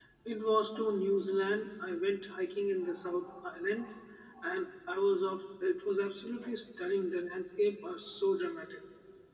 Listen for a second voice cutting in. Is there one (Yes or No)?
No